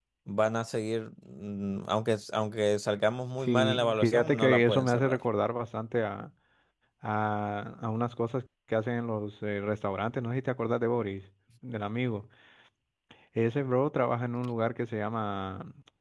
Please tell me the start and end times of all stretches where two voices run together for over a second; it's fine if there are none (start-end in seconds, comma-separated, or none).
3.4-5.2